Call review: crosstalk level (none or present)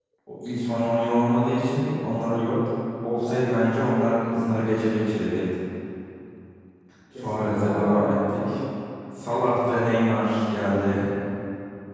present